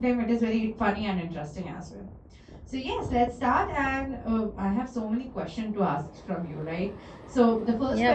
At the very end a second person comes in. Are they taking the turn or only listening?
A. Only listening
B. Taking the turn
A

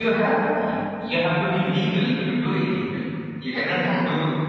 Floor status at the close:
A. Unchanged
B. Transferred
A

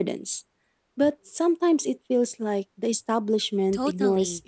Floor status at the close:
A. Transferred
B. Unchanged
A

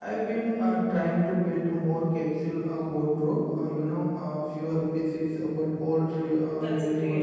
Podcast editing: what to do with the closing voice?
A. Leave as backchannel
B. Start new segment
B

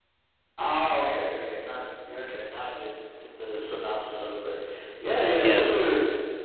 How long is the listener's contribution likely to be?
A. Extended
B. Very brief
B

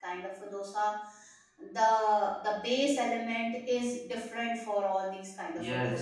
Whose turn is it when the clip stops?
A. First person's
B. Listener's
B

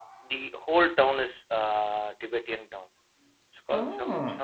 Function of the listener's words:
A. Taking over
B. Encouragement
B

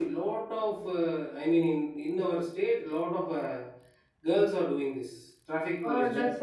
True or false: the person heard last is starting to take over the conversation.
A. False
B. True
B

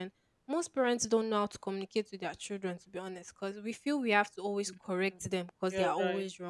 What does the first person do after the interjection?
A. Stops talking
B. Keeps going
B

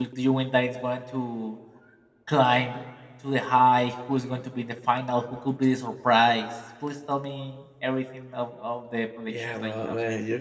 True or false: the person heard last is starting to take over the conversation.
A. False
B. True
B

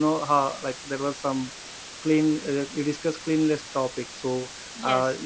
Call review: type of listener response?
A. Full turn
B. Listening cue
B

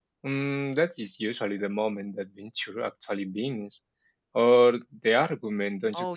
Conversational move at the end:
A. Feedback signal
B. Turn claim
B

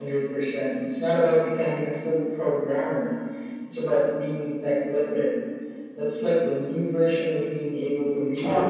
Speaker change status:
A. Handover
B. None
A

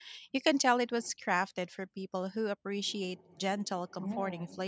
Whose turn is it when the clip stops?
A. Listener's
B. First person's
A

